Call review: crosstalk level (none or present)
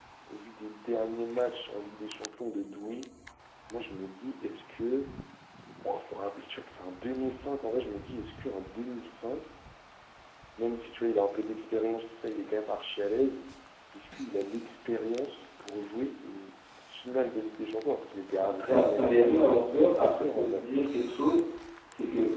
present